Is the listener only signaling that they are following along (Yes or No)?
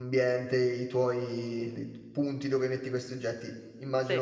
Yes